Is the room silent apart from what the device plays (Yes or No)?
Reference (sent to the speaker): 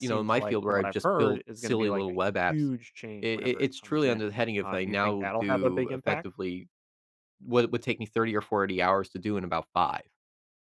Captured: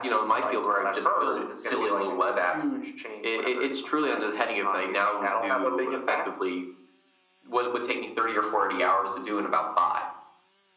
Yes